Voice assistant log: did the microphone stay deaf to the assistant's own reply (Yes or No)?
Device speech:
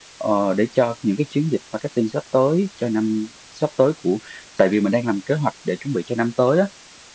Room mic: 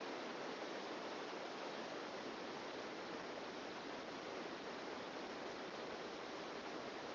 Yes